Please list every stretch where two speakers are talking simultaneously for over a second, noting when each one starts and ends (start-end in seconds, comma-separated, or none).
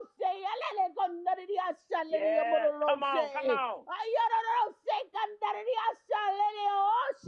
2.1-3.6